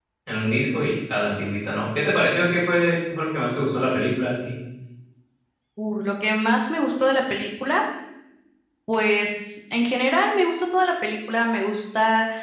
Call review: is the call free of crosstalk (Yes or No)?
Yes